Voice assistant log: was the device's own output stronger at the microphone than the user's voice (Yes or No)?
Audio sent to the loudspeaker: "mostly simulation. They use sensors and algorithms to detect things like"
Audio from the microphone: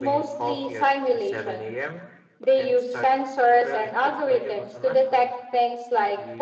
Yes